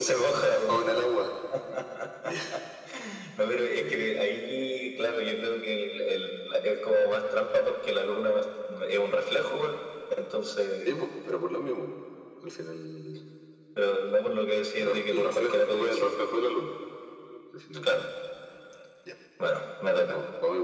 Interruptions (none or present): present